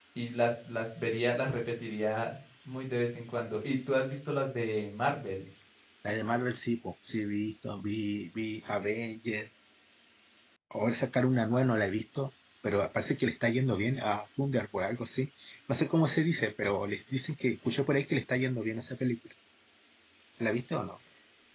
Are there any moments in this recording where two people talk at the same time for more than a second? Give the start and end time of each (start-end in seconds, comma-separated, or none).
none